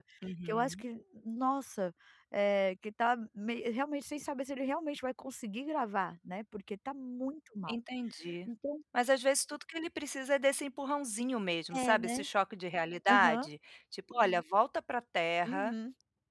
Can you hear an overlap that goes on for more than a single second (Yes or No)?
No